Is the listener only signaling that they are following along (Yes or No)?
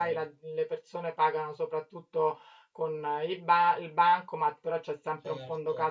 Yes